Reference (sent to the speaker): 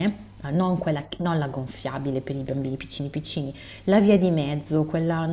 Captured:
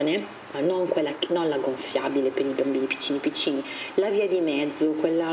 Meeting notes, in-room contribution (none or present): none